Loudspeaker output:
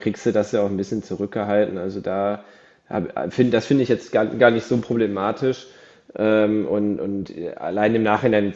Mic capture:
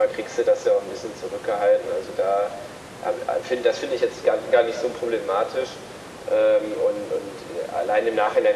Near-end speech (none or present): none